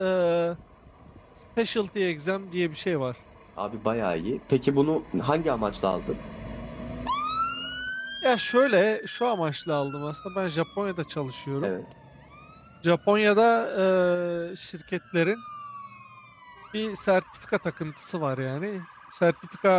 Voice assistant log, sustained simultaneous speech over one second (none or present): none